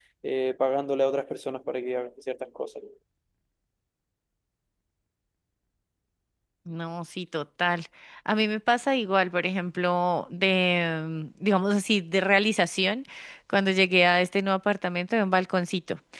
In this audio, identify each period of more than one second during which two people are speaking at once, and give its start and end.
none

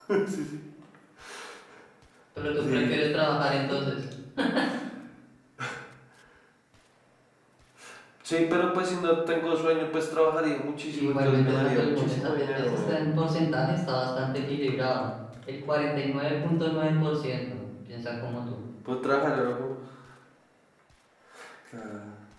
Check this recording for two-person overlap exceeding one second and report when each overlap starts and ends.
10.9-13.0

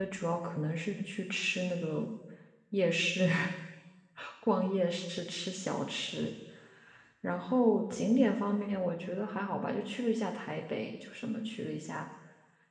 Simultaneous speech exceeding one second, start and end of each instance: none

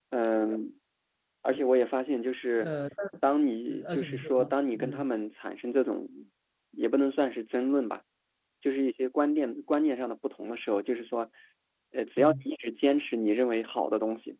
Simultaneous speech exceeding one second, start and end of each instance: 3.9-5.0

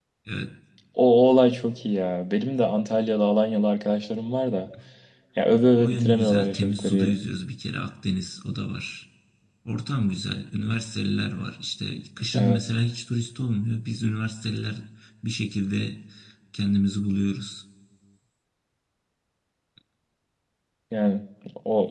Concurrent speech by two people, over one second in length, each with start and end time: 5.8-7.2

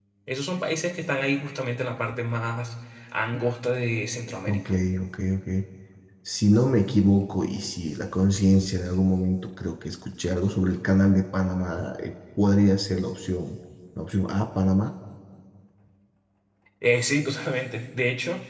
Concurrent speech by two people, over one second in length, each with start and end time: none

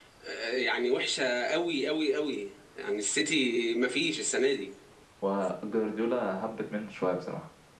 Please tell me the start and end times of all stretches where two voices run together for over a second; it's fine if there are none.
none

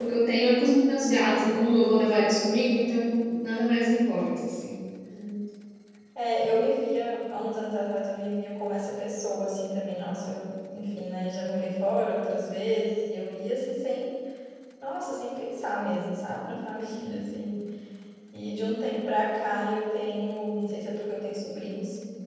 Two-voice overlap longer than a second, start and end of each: none

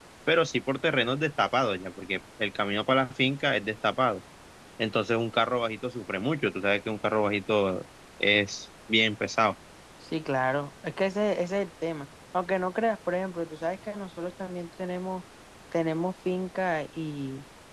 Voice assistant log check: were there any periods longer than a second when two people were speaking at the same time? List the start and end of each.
none

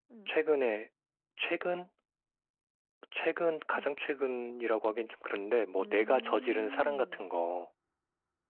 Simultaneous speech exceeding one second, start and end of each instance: 5.8-7.3

